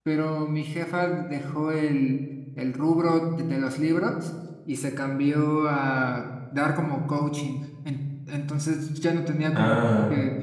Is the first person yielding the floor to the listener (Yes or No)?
No